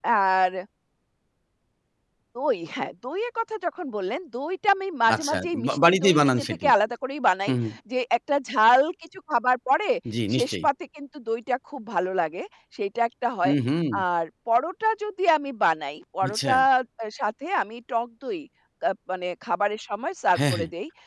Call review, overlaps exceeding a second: present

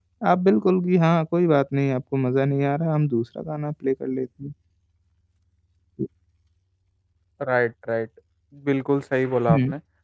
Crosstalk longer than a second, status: none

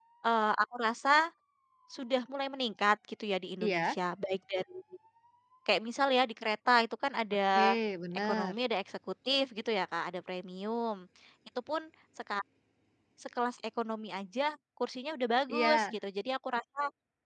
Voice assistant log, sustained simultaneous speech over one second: none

